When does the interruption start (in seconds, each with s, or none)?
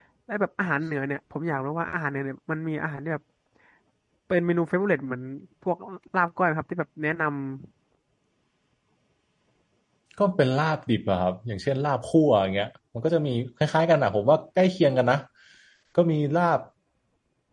none